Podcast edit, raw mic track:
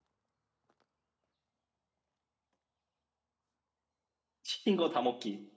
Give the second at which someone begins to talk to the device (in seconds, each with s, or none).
4.4 s